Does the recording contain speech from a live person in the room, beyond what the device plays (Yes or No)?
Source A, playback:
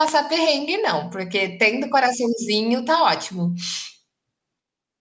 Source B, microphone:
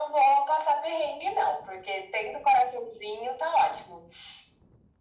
No